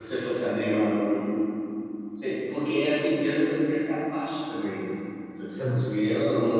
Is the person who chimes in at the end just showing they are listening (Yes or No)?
Yes